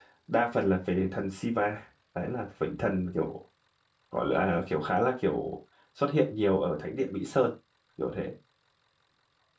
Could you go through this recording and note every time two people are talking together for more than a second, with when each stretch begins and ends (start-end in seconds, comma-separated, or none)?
none